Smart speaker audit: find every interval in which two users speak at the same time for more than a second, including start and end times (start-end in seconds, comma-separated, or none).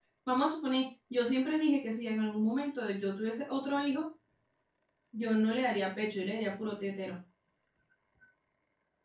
none